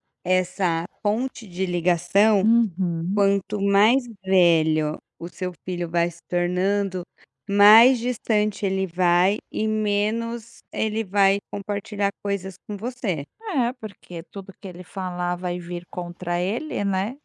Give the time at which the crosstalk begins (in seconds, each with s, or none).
none